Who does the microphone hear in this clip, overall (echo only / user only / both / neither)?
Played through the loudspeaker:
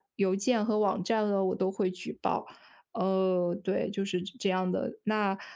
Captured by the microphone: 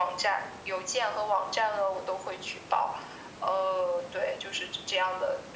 echo only